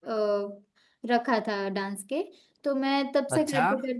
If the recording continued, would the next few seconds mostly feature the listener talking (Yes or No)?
No